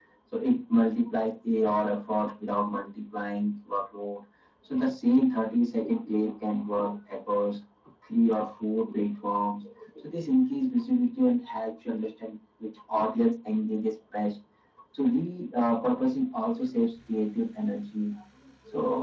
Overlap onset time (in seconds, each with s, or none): none